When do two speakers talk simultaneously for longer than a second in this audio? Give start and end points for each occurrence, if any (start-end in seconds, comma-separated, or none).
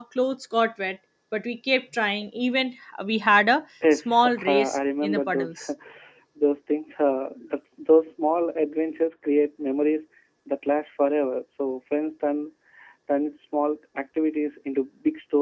3.9-5.6